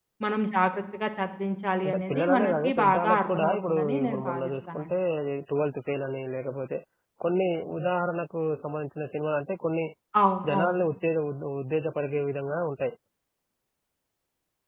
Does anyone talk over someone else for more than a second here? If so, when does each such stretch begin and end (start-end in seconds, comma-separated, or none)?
1.8-4.9